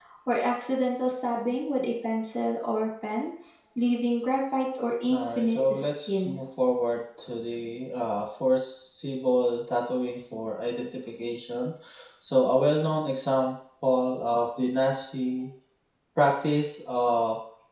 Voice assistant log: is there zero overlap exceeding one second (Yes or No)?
No